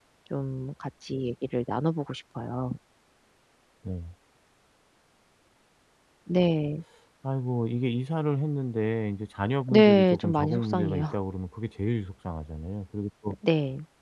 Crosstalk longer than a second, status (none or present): present